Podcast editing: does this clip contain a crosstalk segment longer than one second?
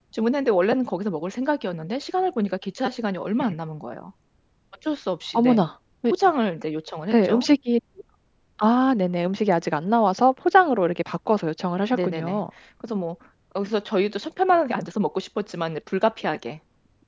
No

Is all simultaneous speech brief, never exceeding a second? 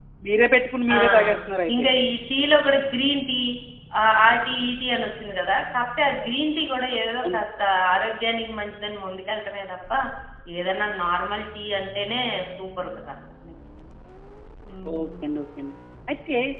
Yes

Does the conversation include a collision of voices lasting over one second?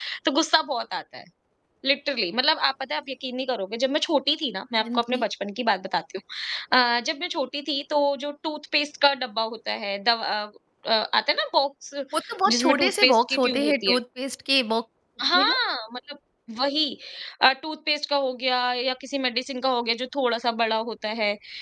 Yes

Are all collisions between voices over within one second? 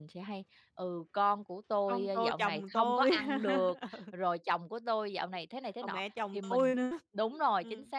No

